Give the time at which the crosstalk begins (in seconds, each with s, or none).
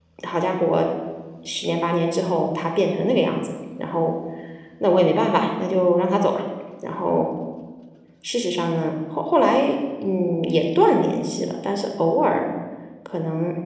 none